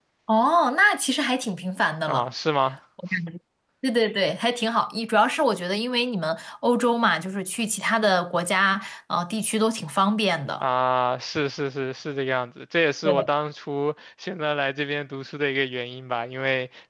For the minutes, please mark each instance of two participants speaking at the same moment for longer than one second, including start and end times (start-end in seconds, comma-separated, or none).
none